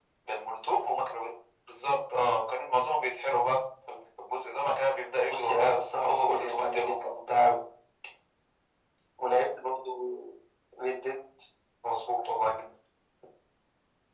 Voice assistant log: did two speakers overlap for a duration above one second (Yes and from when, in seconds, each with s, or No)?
Yes, from 5.3 s